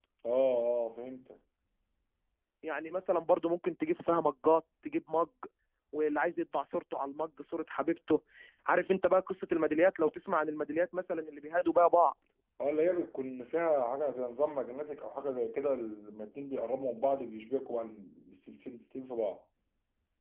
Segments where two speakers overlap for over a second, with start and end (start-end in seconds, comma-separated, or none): none